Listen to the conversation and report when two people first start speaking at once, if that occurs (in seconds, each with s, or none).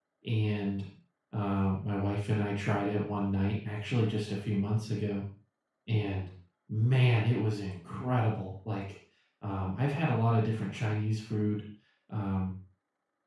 none